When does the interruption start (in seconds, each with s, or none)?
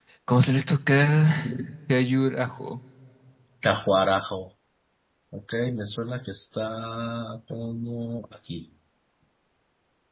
none